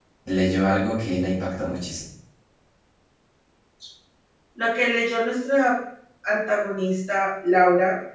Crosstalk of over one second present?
No

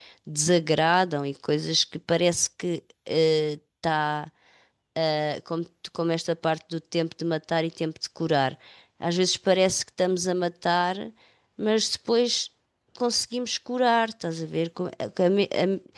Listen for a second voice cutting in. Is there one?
No

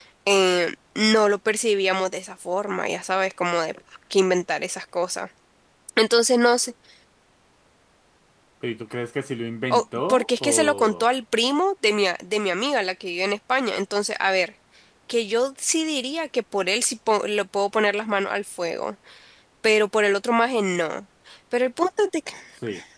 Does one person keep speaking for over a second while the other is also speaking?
Yes, from 9.7 s

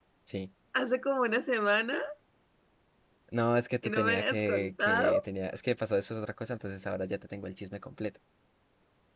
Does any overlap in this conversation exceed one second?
Yes, from 3.8 s

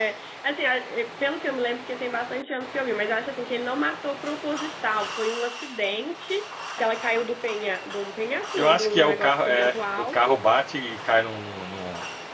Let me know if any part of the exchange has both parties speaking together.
Yes, from 8.6 s

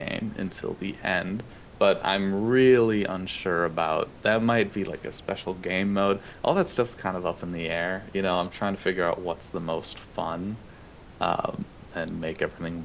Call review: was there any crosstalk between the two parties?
No

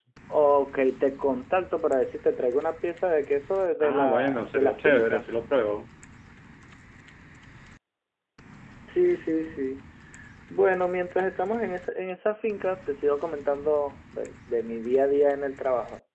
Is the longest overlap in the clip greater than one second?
Yes, from 3.8 s

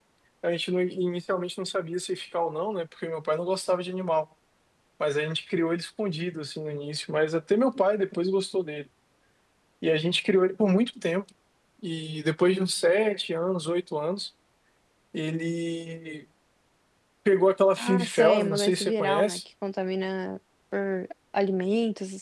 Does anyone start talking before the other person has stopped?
Yes, from 17.8 s

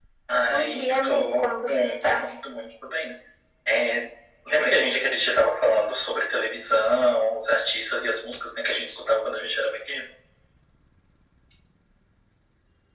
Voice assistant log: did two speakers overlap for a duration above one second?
Yes, from 0.5 s

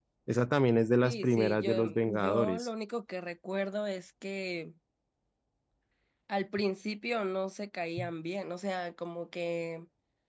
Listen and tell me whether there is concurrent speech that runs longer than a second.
Yes, from 1.0 s

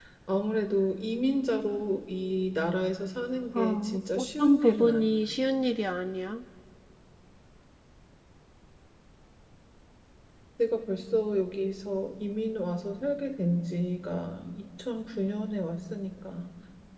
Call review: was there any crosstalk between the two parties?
Yes, from 3.5 s

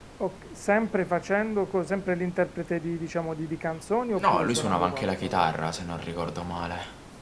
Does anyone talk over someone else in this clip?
Yes, from 4.2 s

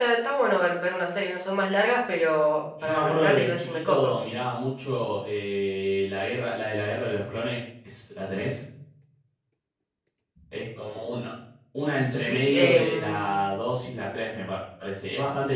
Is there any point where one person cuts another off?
Yes, from 2.8 s

